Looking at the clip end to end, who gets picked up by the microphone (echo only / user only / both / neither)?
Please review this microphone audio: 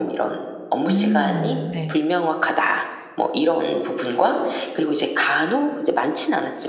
both